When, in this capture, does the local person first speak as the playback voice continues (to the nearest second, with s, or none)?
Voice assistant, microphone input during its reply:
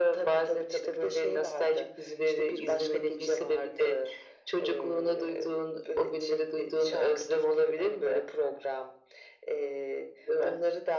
none